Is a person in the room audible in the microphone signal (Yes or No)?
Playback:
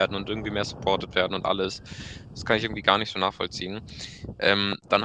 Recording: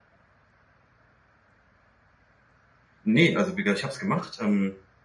Yes